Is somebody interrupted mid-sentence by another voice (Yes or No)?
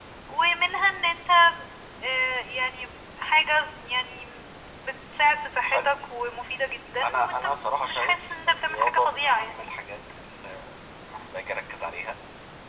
Yes